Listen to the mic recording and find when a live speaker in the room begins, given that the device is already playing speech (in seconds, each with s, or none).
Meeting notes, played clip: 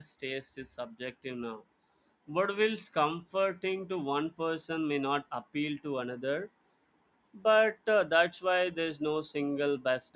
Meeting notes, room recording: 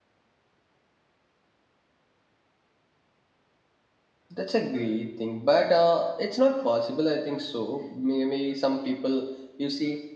4.3 s